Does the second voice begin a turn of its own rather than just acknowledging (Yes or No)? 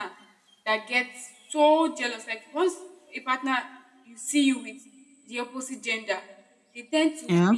No